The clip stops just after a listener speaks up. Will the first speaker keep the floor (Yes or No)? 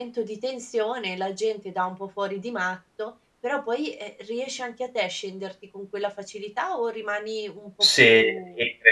No